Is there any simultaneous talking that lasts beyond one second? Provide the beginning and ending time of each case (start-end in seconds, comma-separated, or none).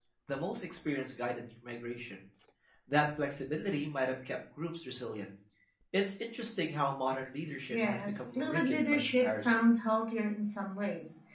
7.7-9.6